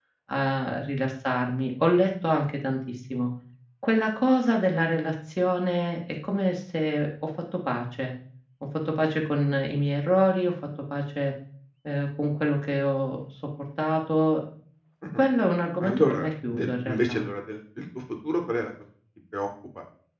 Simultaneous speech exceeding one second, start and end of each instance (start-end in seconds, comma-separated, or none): 15.8-17.2